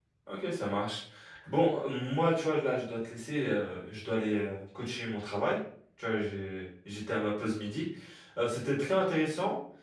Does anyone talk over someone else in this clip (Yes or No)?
No